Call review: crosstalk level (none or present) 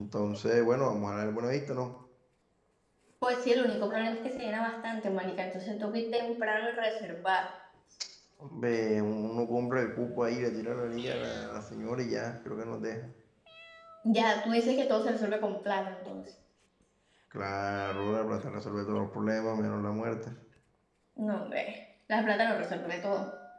none